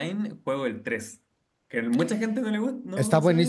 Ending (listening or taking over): taking over